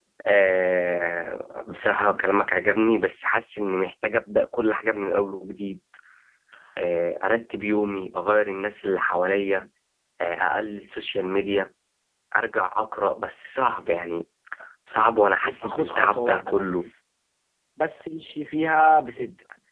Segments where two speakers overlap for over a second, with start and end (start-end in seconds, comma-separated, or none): 15.4-16.9